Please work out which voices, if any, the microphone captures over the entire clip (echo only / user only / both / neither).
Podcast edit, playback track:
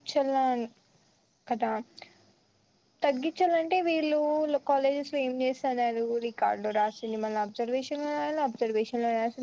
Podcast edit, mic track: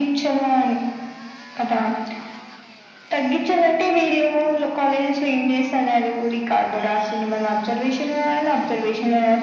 echo only